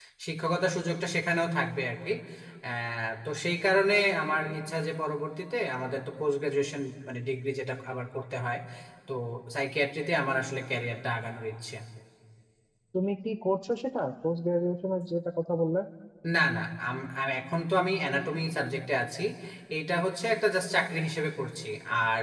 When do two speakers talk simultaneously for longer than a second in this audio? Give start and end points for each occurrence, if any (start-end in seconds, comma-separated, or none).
none